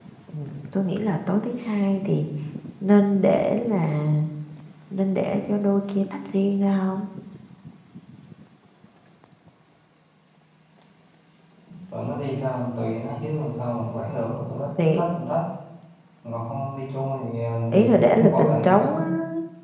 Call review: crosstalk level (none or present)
present